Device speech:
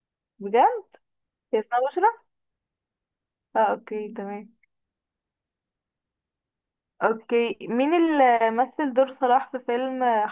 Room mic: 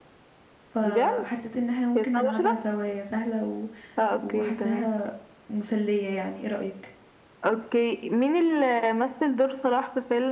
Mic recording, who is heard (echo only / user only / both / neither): both